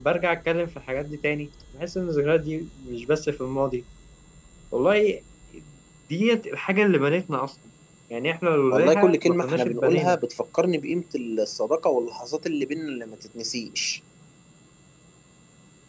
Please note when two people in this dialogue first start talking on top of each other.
8.7 s

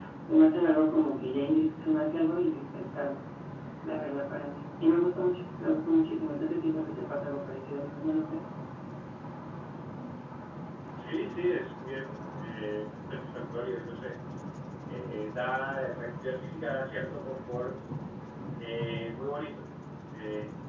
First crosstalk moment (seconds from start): none

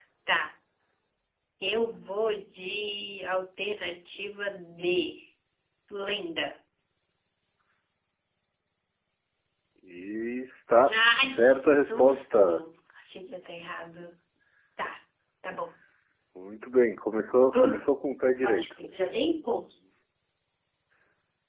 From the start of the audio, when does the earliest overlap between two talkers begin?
10.9 s

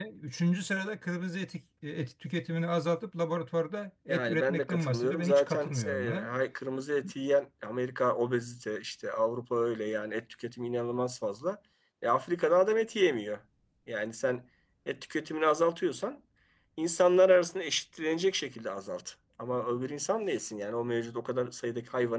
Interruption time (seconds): 4.1 s

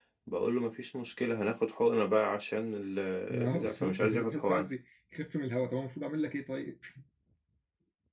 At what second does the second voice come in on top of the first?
3.3 s

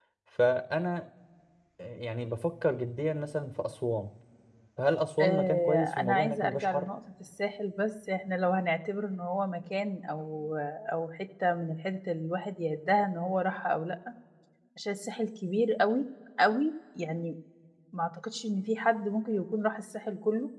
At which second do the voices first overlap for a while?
5.2 s

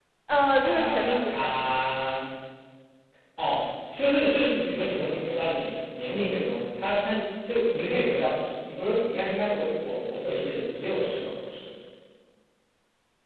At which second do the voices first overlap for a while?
0.6 s

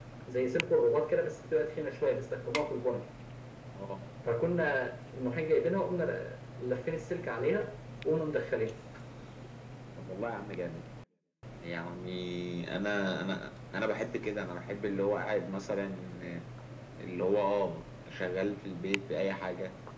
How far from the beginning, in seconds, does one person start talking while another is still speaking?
none

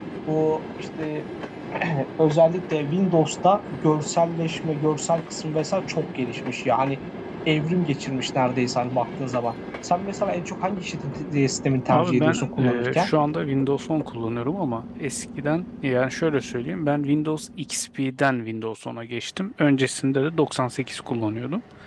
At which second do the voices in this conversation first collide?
11.9 s

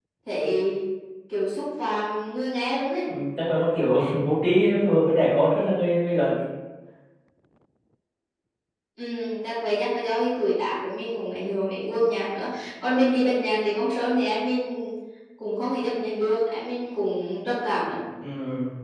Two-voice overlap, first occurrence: none

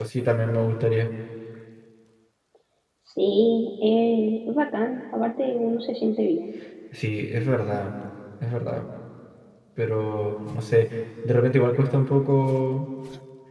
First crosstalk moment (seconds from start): none

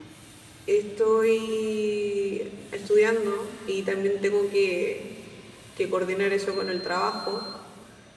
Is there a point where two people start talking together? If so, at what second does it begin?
none

